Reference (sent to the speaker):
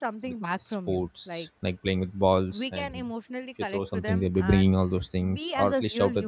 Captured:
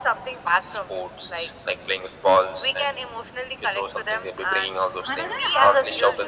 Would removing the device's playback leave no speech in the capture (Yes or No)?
No